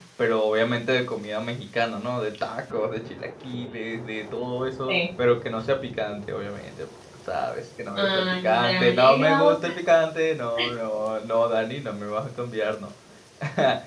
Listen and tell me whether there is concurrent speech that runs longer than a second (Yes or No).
Yes